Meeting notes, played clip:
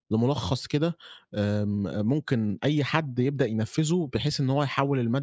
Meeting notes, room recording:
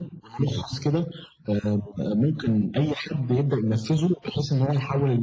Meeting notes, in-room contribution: none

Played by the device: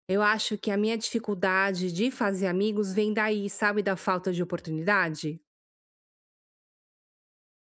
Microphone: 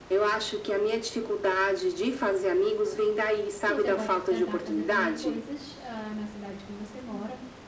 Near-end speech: present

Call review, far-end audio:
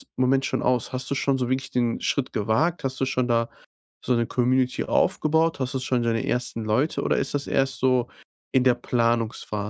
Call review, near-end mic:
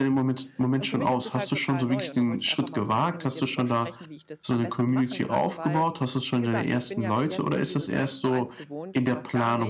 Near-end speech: present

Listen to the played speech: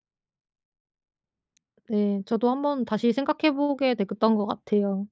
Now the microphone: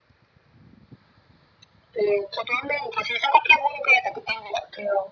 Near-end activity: none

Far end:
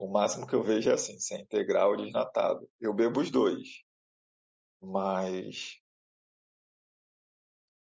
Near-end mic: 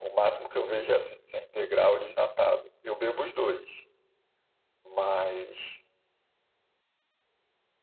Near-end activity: none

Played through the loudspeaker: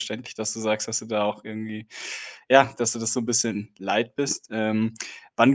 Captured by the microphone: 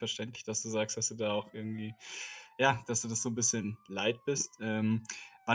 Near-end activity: none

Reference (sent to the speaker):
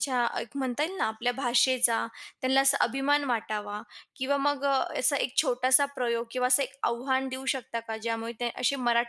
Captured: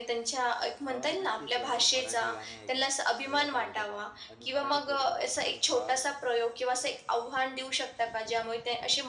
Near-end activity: present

